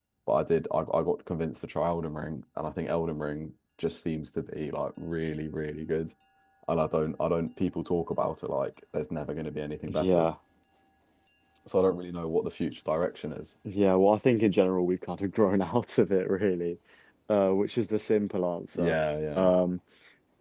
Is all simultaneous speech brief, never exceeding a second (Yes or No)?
Yes